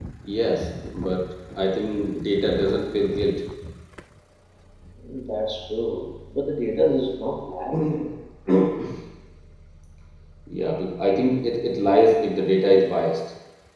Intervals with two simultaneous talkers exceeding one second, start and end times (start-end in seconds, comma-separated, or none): none